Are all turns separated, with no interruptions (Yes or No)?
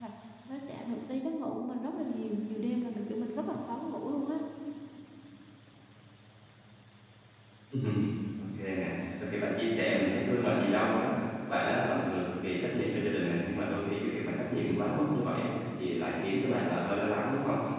Yes